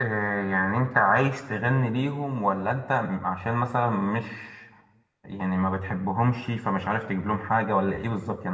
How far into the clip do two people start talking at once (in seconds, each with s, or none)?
none